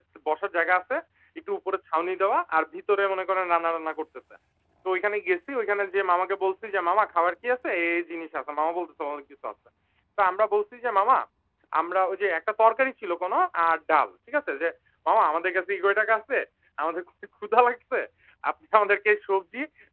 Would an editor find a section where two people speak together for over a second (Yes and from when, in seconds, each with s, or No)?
No